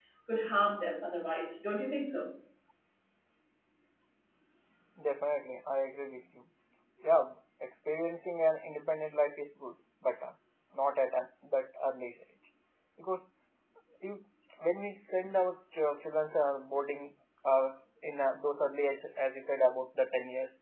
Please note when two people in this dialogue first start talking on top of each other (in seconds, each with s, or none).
none